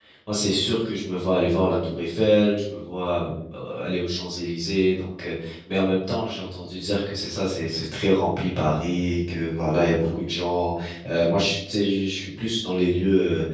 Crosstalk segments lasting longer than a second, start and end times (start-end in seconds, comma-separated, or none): none